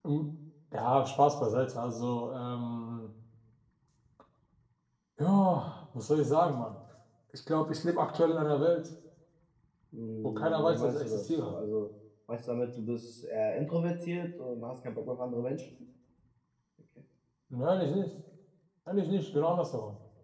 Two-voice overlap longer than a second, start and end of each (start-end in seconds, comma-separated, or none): 10.2-11.6